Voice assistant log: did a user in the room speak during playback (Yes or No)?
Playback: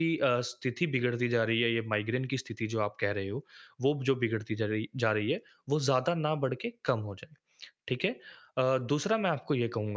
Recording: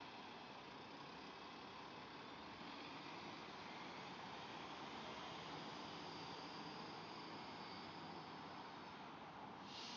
No